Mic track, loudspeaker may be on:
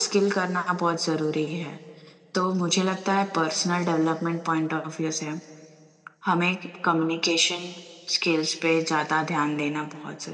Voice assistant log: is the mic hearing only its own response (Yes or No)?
Yes